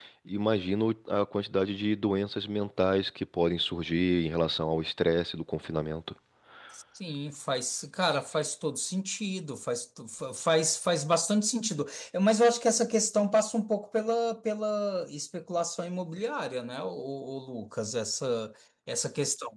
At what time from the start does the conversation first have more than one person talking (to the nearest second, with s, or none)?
none